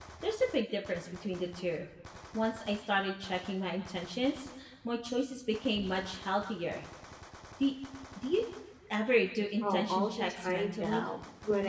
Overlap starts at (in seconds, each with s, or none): 9.6 s